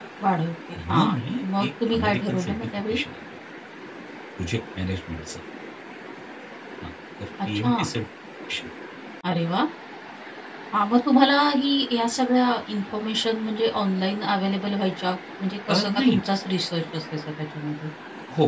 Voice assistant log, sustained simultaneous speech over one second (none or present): present